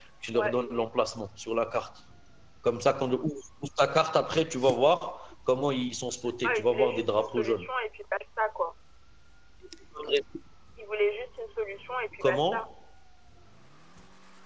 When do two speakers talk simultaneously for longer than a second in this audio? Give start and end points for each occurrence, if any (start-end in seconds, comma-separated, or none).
6.4-7.7